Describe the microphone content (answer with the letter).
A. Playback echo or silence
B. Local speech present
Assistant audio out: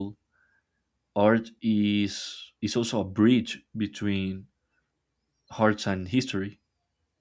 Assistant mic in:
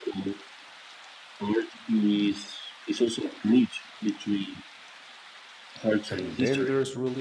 B